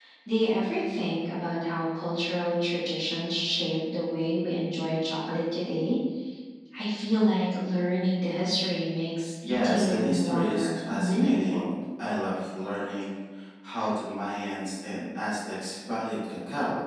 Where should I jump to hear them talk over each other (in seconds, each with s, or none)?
9.4 s